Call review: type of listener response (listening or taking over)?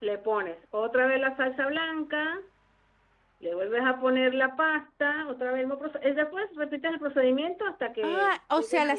taking over